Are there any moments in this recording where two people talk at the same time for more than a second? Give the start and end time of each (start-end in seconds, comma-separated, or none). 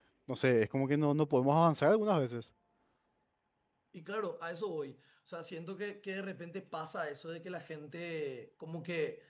none